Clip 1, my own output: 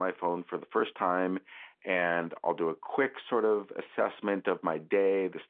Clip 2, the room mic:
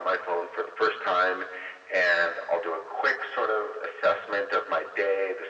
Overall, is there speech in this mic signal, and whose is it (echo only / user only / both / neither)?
echo only